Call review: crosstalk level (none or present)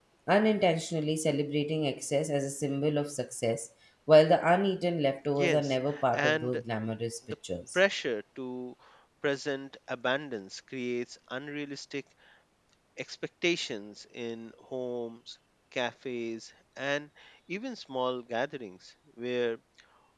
present